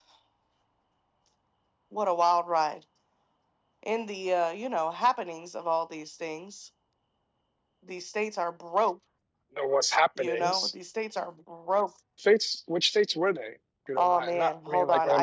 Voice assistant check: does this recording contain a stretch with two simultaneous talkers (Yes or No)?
Yes